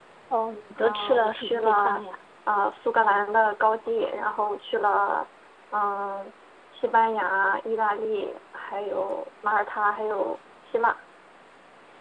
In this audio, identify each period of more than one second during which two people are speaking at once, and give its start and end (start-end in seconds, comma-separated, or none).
0.8-2.0